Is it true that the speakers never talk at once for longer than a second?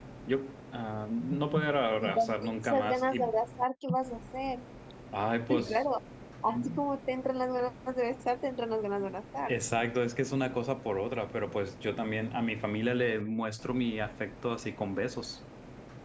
No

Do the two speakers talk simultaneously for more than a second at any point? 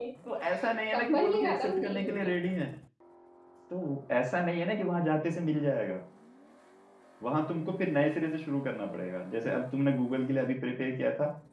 Yes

